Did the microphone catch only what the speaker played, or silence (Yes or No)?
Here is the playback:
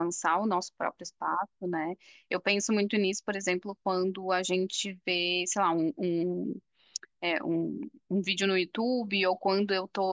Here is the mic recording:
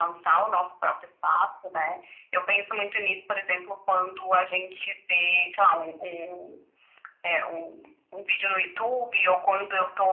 Yes